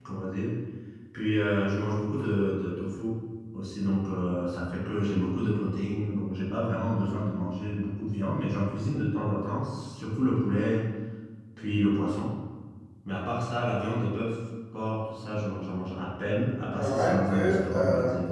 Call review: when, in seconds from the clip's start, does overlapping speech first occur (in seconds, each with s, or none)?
16.8 s